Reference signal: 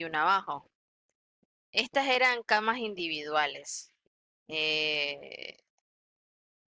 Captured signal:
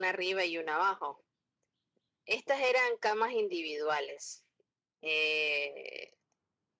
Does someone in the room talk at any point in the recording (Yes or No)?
No